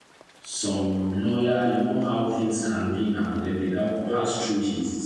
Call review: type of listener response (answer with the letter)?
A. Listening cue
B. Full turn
A